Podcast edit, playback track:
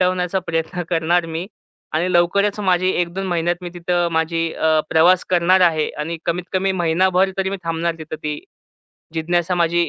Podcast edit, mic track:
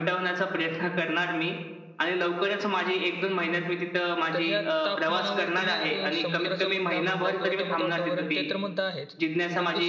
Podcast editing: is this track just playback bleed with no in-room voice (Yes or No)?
No